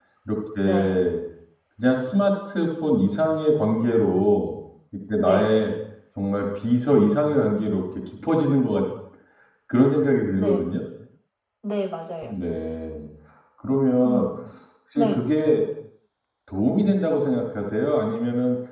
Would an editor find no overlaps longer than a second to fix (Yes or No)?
Yes